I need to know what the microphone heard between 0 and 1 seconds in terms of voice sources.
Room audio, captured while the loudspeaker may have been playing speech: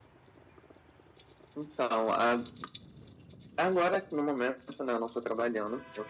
neither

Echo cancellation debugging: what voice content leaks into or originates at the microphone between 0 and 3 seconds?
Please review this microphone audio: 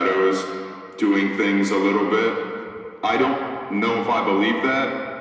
echo only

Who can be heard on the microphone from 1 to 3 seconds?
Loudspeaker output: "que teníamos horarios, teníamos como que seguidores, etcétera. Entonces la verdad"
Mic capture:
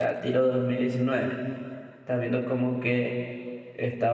user only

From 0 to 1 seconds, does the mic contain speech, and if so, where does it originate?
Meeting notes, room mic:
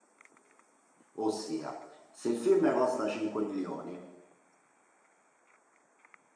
neither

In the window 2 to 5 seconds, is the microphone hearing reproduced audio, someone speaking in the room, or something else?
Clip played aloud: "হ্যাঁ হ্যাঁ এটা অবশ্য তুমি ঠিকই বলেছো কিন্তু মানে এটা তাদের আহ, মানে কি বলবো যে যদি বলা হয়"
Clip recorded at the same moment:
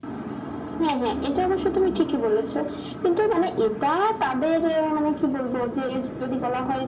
echo only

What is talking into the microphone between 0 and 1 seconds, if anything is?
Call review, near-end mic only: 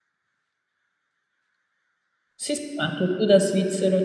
neither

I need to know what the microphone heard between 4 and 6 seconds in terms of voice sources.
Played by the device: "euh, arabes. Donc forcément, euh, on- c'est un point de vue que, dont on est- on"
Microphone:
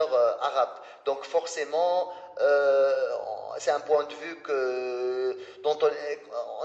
echo only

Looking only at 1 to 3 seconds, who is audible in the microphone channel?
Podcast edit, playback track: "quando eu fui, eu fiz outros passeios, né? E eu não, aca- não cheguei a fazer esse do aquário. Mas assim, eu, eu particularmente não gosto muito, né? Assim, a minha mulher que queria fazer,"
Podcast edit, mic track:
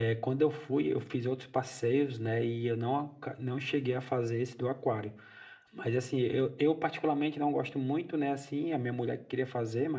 echo only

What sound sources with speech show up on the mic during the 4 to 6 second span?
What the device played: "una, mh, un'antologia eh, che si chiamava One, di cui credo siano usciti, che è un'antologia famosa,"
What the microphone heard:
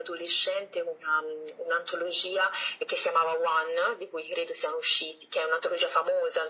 echo only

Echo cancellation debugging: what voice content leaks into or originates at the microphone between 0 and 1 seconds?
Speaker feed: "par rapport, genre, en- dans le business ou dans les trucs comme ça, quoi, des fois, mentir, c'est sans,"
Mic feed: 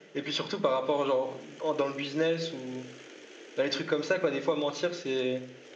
echo only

